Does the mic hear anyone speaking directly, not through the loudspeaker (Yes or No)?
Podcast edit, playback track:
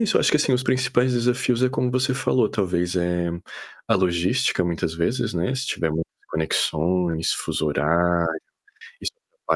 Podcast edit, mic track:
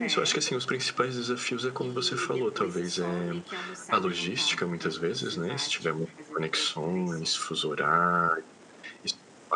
Yes